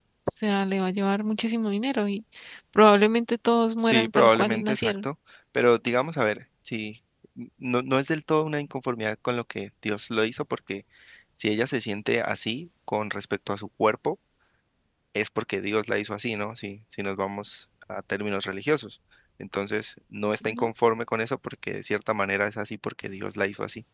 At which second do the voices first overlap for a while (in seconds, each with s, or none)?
3.8 s